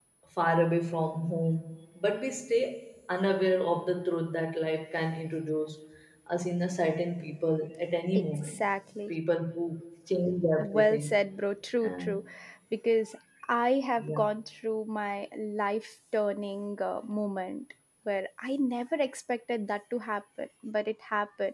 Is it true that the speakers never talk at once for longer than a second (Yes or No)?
Yes